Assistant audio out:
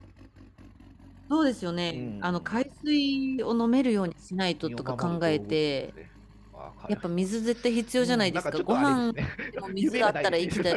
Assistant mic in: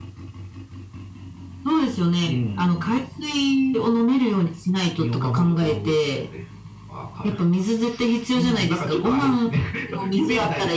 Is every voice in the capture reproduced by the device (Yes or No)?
Yes